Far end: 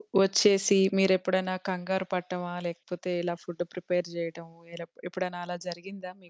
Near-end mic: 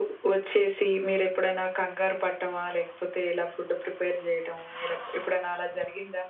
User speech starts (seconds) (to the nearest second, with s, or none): none